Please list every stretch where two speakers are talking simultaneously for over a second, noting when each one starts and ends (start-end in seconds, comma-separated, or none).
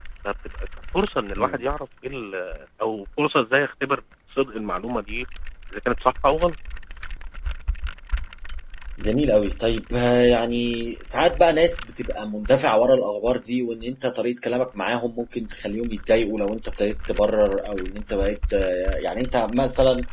none